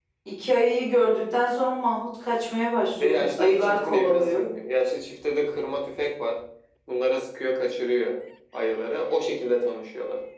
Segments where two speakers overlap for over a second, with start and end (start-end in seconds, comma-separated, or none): 3.0-4.5